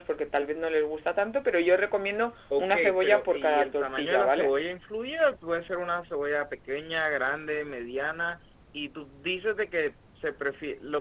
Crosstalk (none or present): present